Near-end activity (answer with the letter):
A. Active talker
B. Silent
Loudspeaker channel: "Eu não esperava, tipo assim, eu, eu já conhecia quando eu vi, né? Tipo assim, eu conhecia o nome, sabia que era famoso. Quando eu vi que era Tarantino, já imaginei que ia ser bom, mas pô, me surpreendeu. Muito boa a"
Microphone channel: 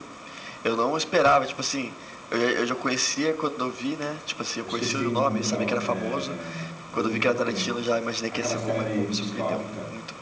A